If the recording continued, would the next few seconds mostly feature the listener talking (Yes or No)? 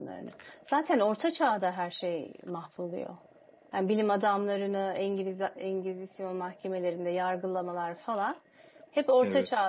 No